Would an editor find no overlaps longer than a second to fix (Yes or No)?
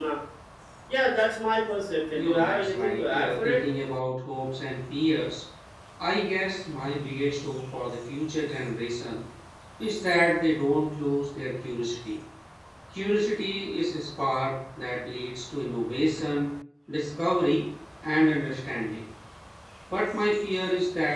No